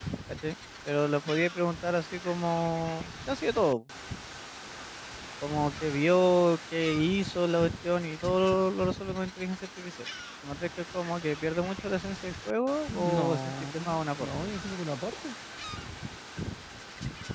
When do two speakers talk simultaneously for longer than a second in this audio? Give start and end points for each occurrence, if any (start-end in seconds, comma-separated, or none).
12.9-14.3